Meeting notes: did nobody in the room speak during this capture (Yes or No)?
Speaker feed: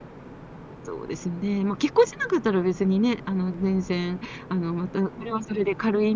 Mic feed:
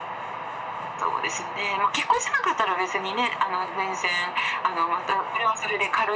Yes